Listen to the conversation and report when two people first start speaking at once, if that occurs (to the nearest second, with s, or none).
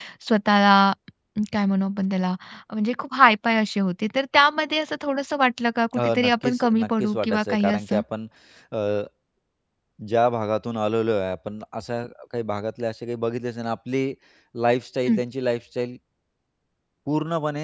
6 s